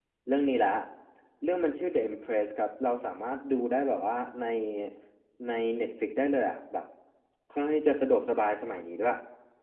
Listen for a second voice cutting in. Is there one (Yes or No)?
No